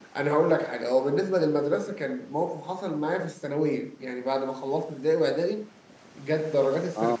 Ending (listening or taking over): listening